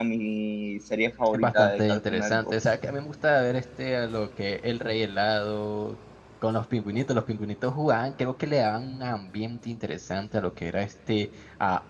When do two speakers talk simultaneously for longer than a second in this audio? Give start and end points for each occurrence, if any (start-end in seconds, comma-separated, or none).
1.3-2.5